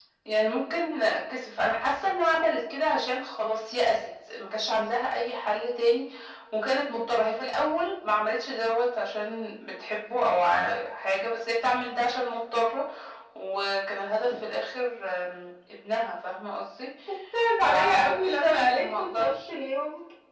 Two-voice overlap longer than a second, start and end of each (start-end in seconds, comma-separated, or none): 17.7-19.3